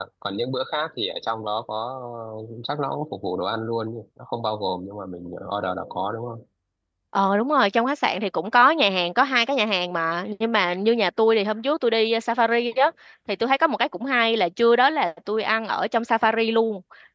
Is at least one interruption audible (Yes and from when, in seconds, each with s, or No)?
No